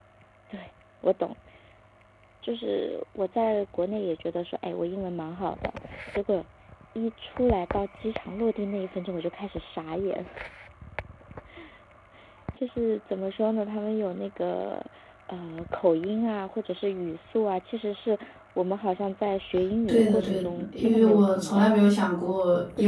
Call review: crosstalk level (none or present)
present